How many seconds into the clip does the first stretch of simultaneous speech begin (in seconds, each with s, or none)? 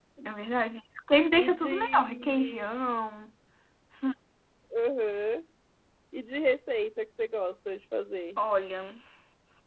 1.4 s